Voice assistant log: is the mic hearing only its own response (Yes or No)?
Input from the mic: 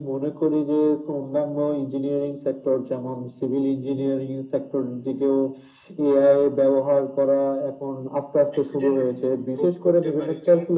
No